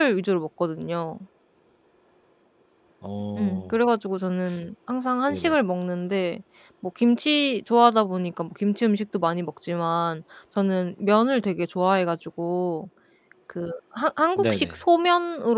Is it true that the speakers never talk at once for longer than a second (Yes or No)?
Yes